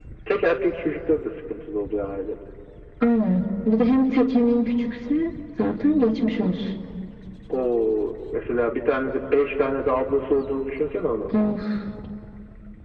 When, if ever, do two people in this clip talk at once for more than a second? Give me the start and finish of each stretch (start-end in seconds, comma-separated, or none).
none